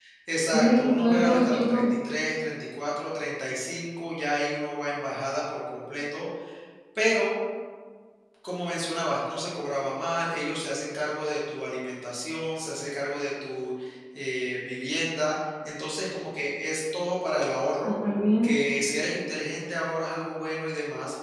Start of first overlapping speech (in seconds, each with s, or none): 0.5 s